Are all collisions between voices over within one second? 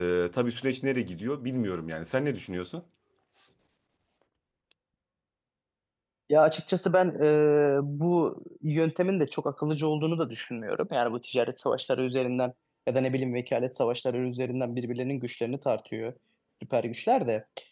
Yes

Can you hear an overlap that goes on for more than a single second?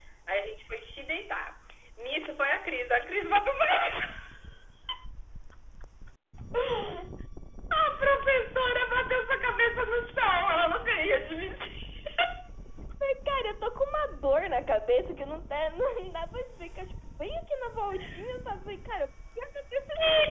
No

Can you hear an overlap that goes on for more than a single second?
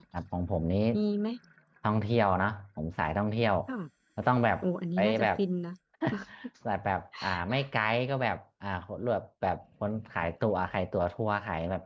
No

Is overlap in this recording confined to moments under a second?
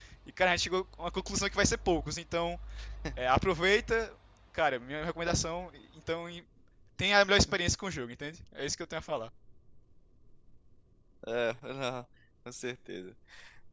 Yes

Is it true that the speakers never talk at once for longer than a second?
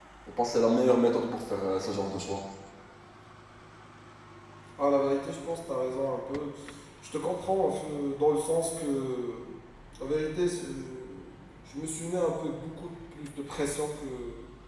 Yes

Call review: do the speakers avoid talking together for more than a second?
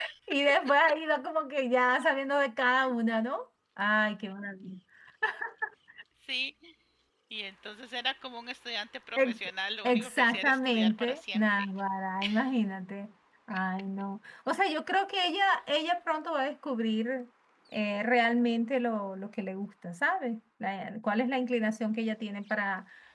No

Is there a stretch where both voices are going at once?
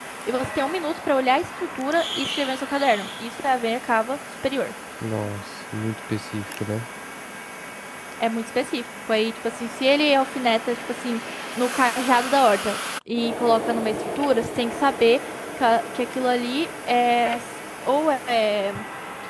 No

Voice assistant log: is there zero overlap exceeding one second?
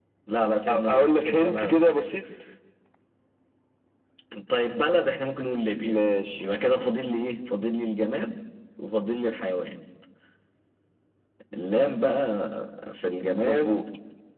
No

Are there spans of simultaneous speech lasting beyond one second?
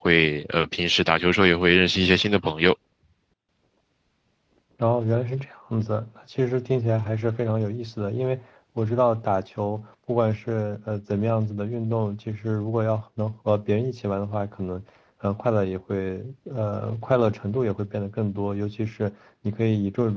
No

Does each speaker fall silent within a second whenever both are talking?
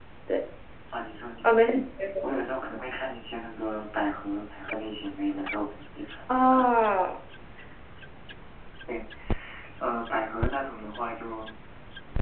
Yes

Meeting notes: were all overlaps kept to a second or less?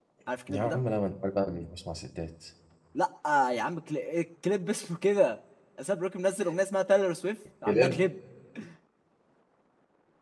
Yes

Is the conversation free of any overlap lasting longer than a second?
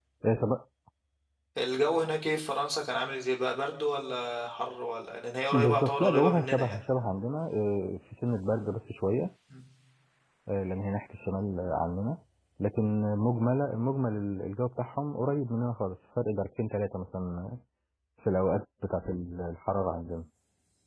No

